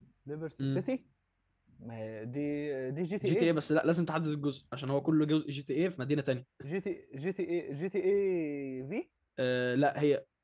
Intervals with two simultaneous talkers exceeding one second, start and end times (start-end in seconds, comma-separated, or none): none